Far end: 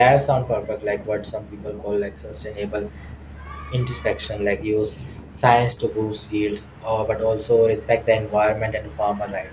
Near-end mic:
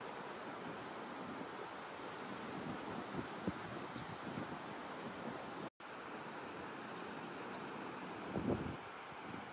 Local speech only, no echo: none

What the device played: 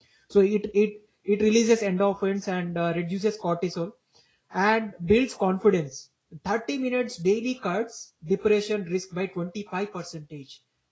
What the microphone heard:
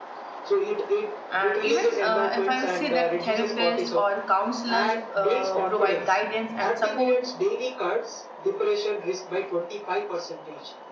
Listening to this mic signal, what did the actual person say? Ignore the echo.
and even uh, if i'll say that therapists or counselors uh, provide guidance and support

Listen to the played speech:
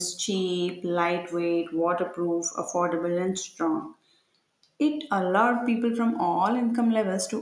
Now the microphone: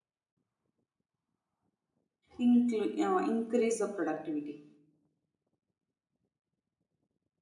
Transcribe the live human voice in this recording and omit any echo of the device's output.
inclu- uh, increase the productivity.

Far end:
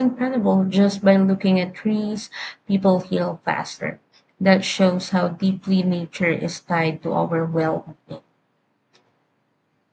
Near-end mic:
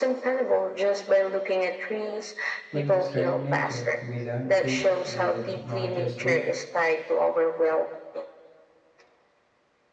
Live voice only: When we study nature, we learn to listen not just to

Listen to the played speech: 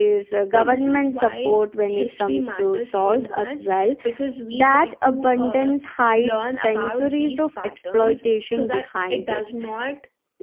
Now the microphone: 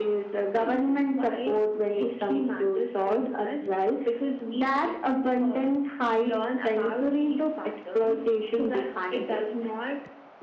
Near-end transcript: none

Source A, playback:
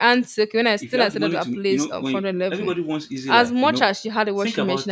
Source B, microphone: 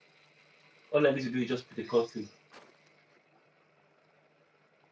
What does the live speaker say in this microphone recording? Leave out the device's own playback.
All I need to do is just put a call through.

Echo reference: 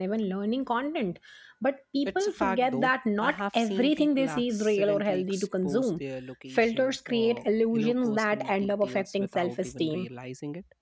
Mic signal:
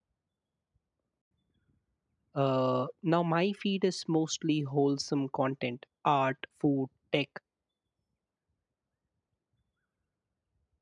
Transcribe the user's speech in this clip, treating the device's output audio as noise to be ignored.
Uh, now, my feed is mostly wholesome content art, food, tech,

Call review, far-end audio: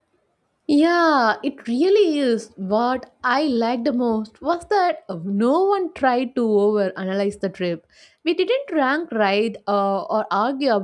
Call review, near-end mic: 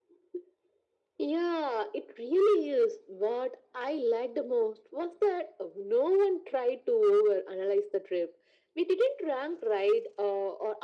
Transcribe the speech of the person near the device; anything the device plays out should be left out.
none

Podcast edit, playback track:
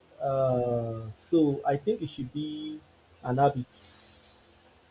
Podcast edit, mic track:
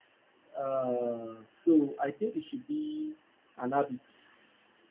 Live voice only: none

